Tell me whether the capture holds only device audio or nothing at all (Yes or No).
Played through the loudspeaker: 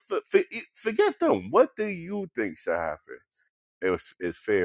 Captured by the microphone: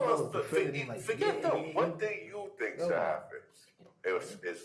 No